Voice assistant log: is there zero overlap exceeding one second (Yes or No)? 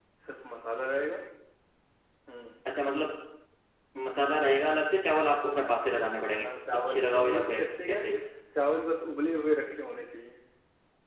No